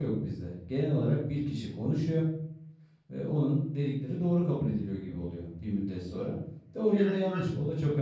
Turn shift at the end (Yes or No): No